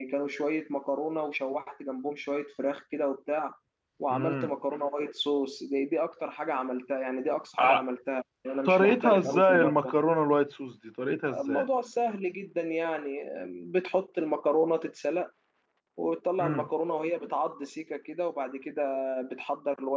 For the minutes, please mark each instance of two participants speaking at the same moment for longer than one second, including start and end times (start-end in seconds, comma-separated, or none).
8.6-10.0